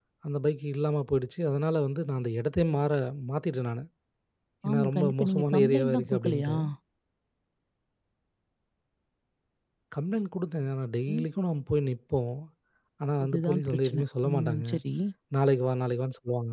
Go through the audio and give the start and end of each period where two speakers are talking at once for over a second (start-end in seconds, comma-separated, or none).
4.7-6.5, 13.2-14.7